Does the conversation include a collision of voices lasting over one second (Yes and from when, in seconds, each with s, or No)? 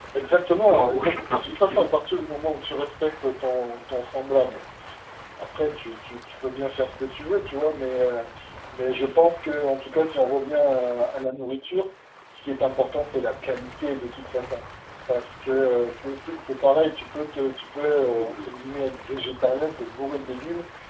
Yes, from 0.7 s